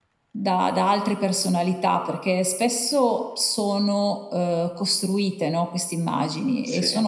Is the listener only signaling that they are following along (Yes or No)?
Yes